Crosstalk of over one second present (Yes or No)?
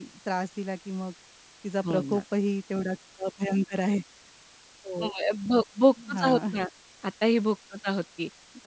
No